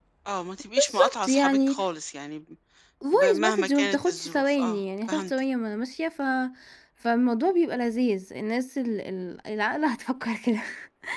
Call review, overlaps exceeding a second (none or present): present